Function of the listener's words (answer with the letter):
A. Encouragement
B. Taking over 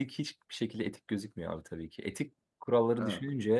A